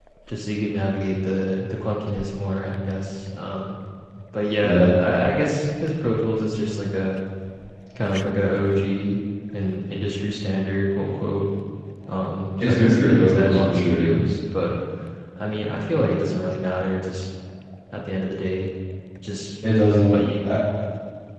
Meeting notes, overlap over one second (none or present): present